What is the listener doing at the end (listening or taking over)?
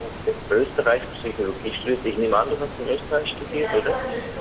taking over